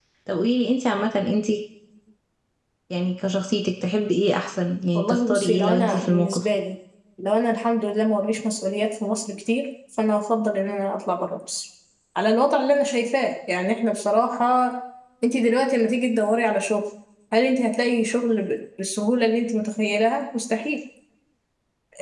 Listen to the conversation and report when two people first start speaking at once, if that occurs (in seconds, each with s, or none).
5.0 s